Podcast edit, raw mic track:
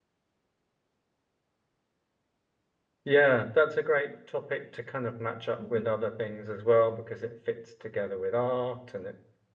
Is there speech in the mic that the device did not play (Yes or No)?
Yes